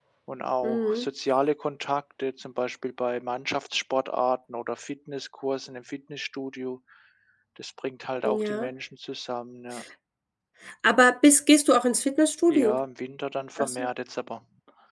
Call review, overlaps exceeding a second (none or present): none